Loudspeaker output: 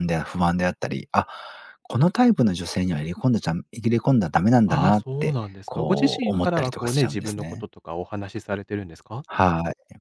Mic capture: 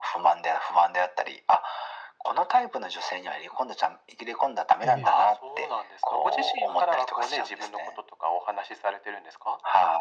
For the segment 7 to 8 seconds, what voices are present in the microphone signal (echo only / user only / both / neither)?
echo only